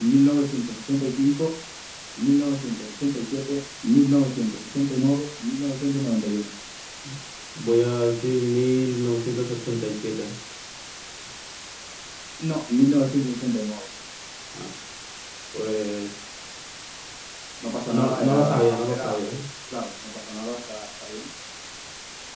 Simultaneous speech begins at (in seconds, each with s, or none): 17.9 s